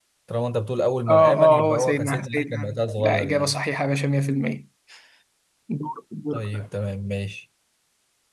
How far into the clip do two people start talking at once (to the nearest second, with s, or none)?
1 s